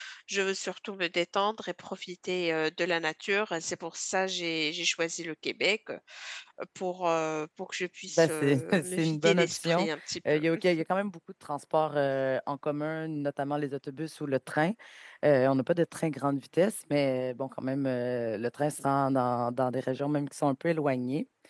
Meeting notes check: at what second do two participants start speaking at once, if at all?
8.2 s

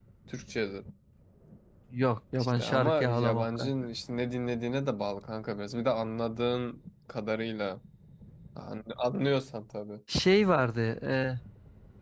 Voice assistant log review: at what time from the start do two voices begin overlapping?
2.4 s

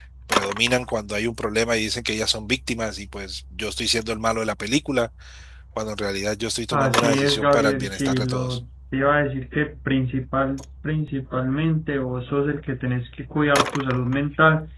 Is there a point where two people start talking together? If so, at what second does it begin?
6.7 s

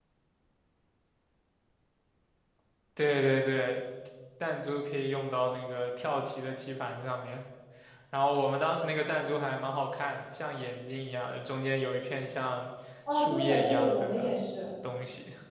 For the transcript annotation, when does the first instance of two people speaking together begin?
13.1 s

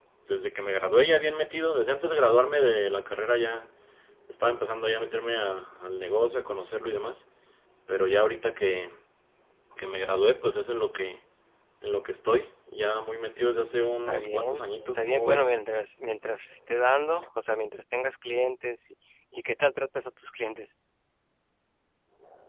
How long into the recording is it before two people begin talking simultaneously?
14.1 s

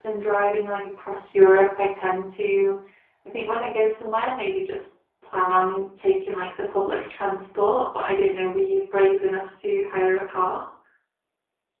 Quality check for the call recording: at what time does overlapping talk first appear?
none

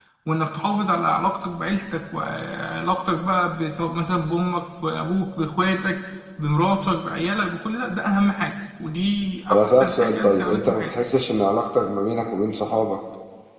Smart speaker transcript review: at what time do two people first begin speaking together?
9.5 s

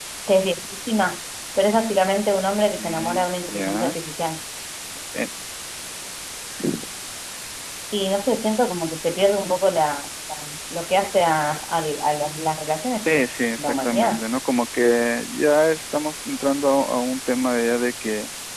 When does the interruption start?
2.7 s

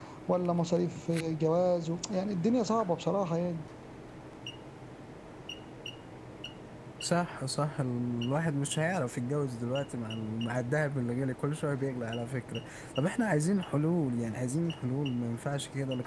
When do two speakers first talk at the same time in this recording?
none

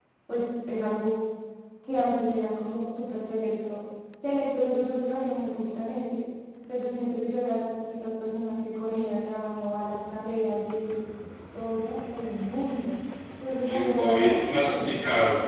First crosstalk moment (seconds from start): 13.6 s

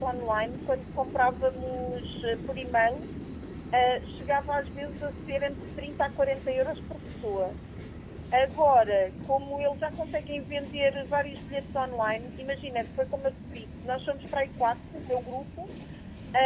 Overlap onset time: none

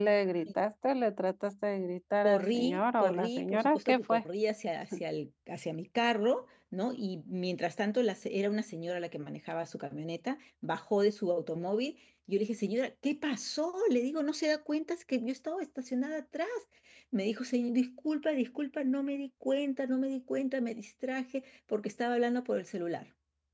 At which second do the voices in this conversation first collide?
2.2 s

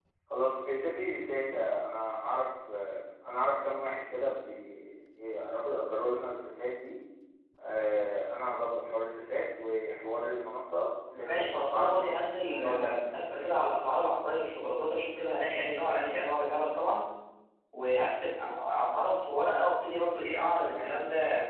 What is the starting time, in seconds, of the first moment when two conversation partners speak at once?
11.2 s

